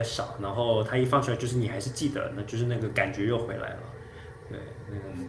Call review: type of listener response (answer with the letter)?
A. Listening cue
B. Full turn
B